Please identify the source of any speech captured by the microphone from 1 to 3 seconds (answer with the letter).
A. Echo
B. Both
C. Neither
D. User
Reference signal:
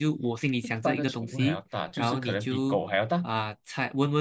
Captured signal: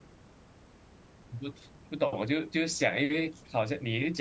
D